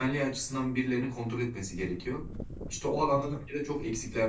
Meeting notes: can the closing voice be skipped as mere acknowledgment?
Yes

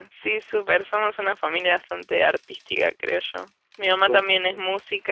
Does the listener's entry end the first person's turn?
No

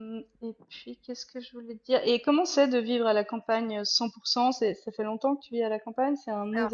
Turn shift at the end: Yes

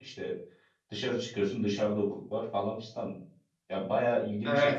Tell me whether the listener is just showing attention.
No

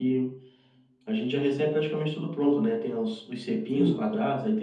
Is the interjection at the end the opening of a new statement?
No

